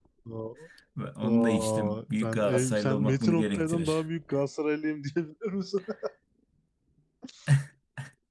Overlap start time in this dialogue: 1.2 s

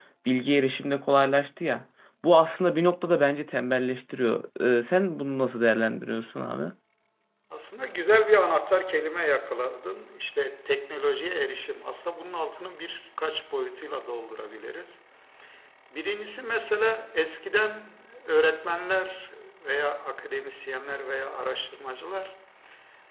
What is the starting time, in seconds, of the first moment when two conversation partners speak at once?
none

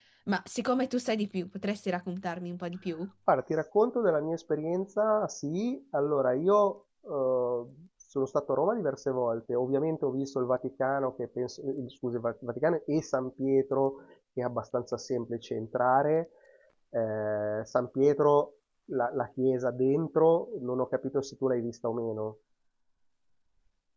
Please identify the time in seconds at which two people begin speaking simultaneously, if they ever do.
none

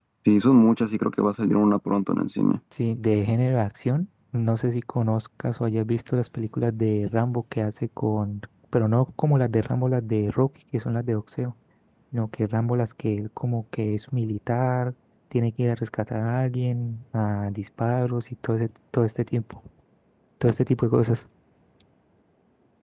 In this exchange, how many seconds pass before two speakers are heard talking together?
none

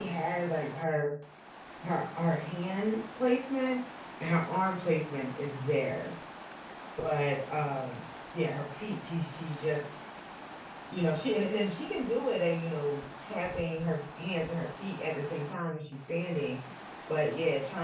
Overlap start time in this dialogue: none

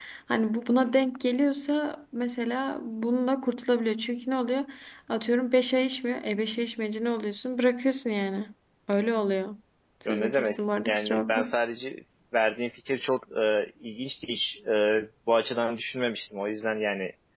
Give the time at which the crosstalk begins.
10.1 s

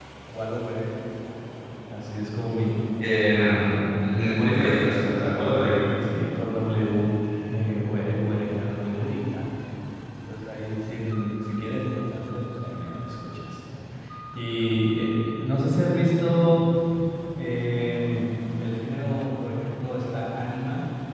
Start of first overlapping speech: none

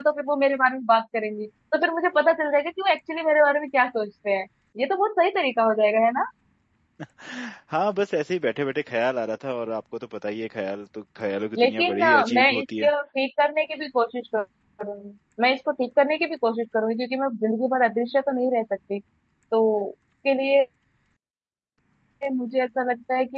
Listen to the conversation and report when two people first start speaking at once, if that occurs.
11.6 s

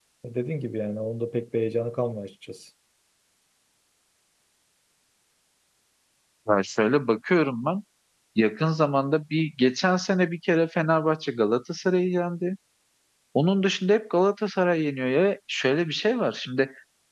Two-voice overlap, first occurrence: none

